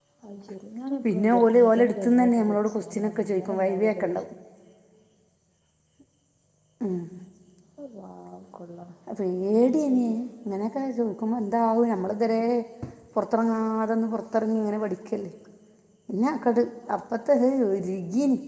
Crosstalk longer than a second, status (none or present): present